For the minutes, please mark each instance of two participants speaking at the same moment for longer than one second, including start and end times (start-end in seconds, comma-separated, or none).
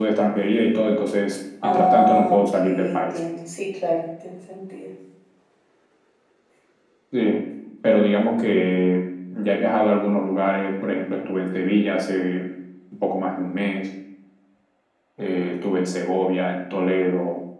1.6-3.2